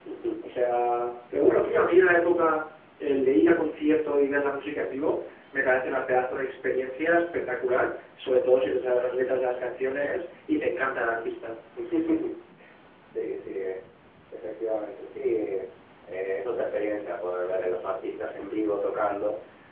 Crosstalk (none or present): none